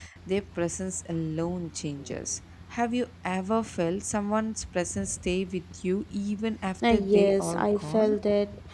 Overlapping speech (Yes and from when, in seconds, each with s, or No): Yes, from 6.8 s